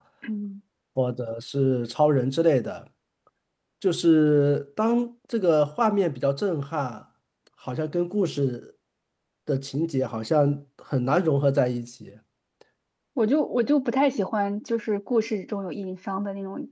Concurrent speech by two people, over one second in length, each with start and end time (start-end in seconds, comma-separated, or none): none